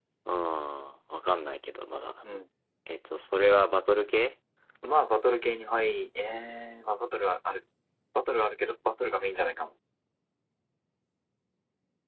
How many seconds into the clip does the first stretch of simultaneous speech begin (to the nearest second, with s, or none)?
none